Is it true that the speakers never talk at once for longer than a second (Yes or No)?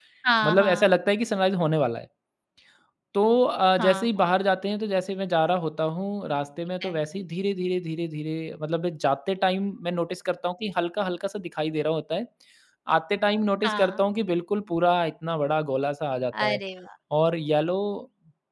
Yes